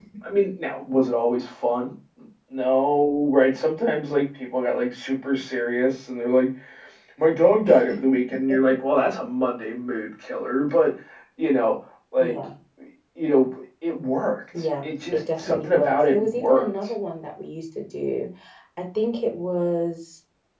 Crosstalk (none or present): present